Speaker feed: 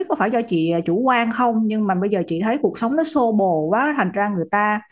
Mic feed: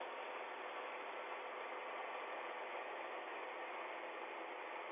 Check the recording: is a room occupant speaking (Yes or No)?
No